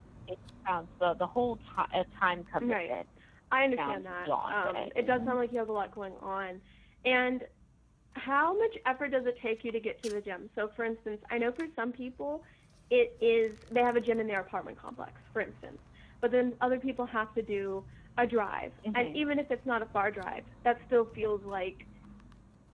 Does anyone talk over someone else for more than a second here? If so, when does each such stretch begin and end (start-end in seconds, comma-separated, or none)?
3.8-5.4